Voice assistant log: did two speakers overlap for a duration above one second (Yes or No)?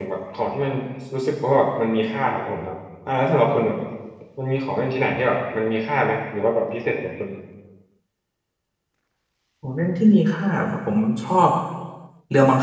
No